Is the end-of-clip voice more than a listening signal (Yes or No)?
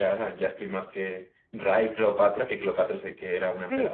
Yes